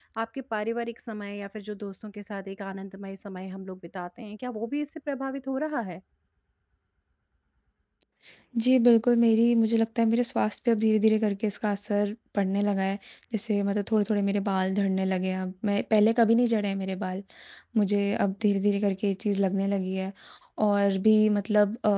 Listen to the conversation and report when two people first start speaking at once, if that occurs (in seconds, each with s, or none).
none